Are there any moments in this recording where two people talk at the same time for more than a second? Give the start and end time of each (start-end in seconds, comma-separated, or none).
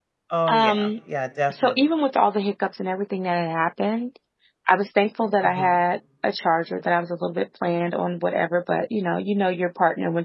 none